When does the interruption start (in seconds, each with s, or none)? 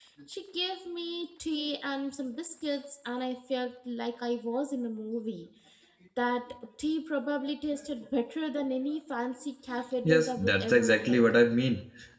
10.0 s